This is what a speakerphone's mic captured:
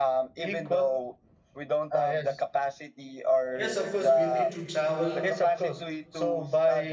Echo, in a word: present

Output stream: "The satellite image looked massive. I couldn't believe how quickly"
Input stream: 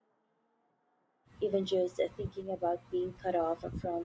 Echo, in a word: none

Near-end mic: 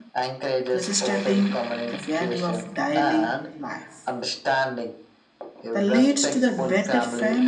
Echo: present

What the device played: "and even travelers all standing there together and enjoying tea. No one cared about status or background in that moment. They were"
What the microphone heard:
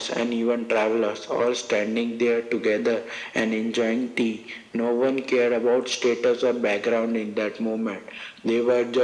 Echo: present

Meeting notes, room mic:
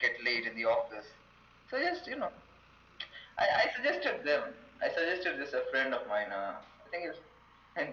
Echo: present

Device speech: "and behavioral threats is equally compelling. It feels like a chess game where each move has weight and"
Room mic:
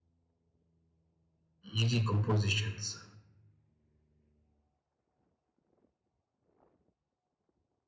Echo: none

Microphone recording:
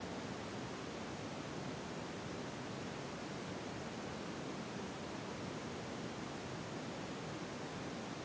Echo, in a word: none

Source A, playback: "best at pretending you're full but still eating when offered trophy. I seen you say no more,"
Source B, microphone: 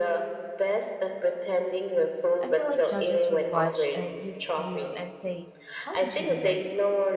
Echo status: present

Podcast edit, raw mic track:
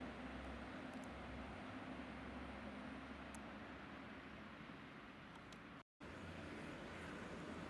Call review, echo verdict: none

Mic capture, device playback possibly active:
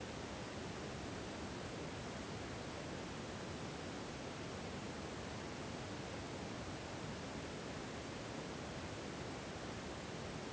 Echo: none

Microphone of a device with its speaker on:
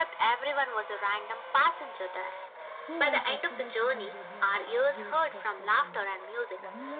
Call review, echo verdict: present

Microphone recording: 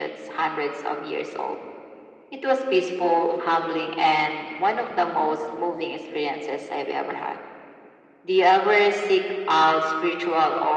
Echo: present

